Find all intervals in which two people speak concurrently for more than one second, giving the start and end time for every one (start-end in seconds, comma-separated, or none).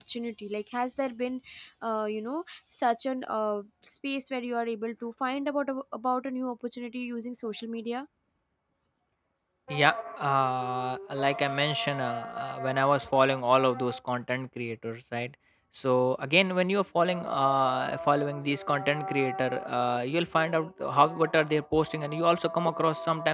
none